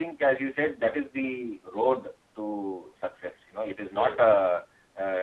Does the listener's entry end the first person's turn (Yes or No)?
No